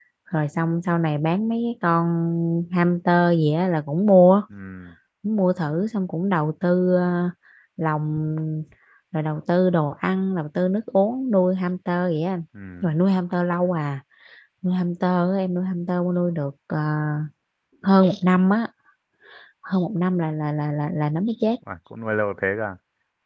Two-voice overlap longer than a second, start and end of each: none

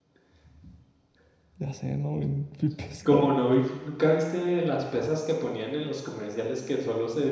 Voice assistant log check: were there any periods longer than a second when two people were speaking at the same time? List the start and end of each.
none

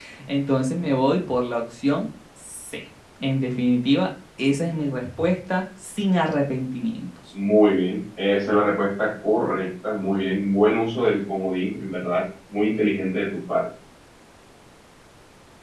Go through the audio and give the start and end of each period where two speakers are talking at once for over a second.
none

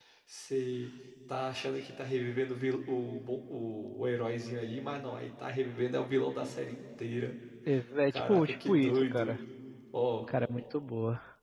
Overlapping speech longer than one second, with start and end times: 8.1-9.3

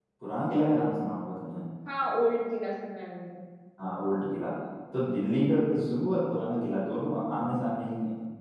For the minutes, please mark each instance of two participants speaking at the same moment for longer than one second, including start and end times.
none

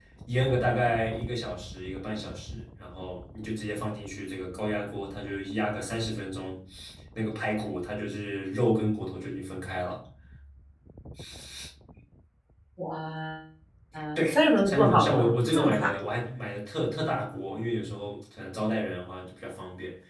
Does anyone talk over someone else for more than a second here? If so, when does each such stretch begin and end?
14.2-15.9

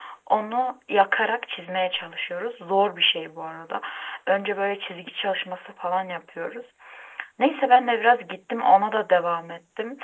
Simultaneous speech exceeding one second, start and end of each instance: none

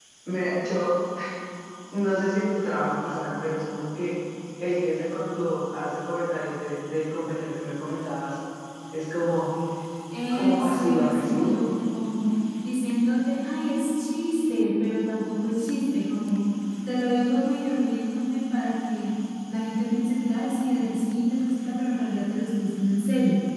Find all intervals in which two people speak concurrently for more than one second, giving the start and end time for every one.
10.3-11.5

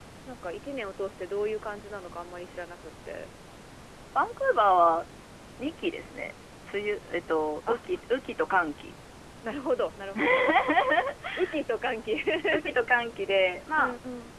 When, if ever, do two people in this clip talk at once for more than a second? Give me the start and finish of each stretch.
none

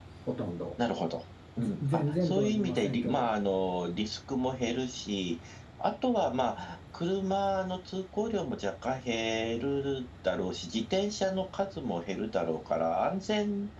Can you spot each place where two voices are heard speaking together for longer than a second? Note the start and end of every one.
1.6-3.3

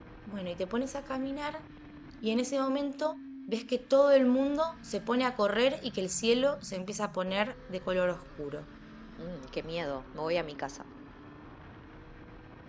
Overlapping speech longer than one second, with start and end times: none

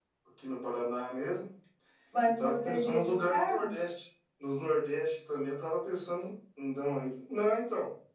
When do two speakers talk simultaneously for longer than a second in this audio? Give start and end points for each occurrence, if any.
2.2-3.7

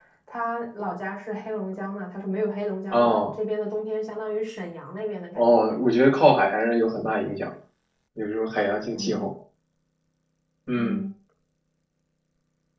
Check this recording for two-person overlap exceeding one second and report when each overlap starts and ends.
none

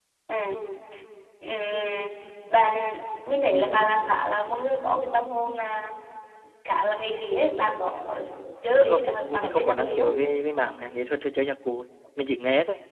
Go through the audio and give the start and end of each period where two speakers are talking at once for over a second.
8.8-10.1

